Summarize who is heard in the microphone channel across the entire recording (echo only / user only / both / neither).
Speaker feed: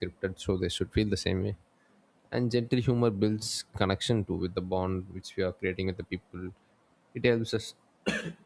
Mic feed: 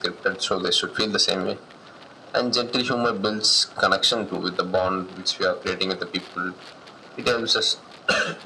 echo only